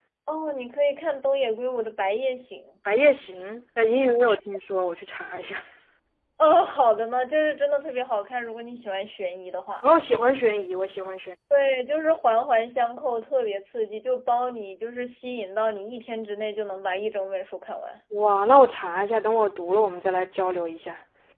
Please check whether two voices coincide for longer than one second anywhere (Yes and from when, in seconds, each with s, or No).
No